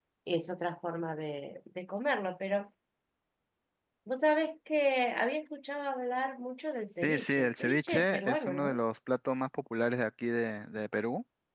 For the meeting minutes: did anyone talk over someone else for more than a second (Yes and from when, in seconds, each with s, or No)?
Yes, from 7.0 s